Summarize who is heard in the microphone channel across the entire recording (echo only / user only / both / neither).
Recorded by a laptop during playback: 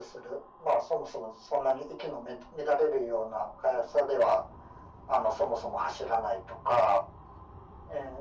echo only